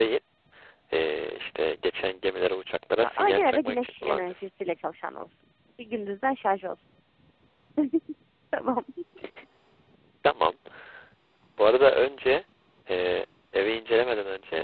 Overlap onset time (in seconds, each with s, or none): 3.0 s